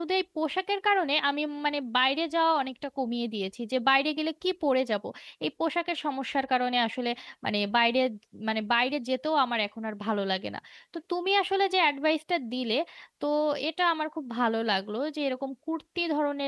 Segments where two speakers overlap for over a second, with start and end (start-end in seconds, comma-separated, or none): none